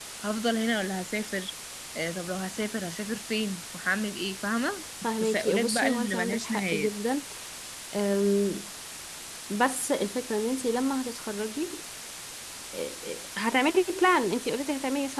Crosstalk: present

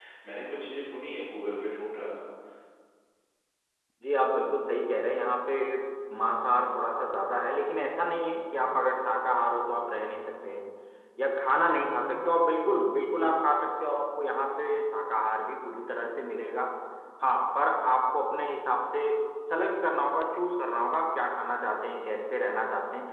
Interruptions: none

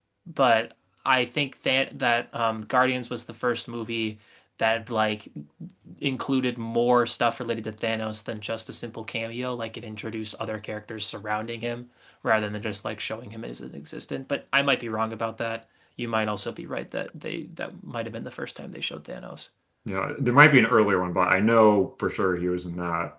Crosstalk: none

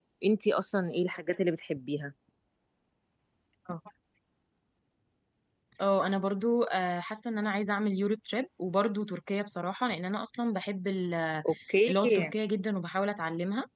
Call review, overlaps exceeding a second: none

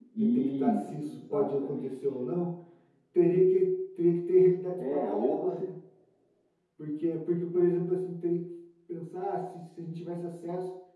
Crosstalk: present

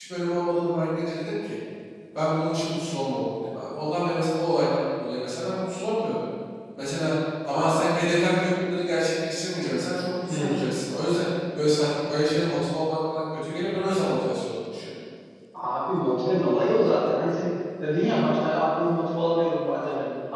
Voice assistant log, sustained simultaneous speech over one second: none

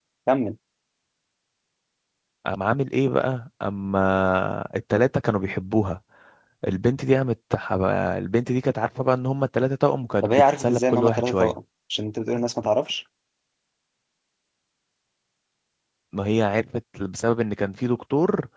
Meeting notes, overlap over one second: present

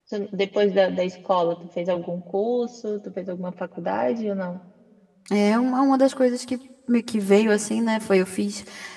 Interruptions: none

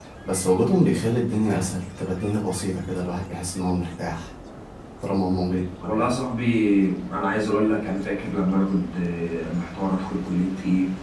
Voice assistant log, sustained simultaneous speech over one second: none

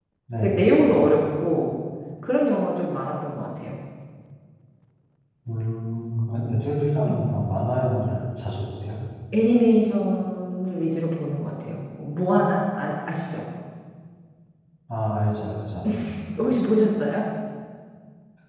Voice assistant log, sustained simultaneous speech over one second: none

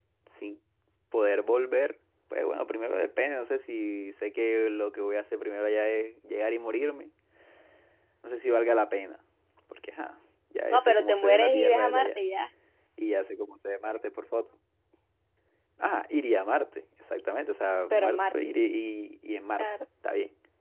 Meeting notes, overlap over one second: present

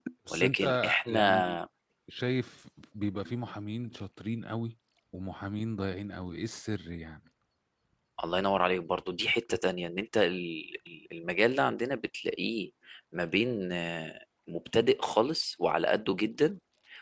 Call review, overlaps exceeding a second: present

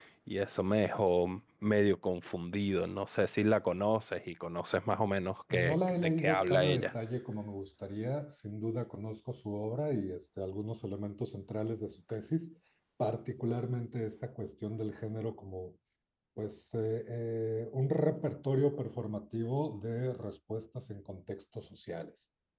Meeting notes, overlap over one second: present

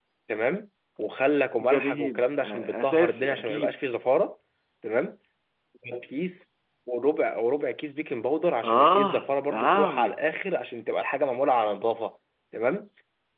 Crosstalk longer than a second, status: present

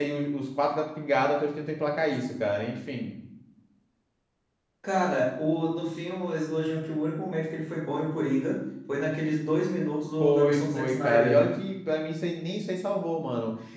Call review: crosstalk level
present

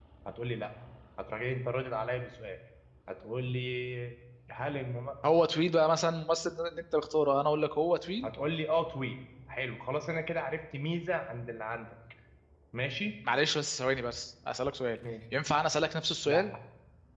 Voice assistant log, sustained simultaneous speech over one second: none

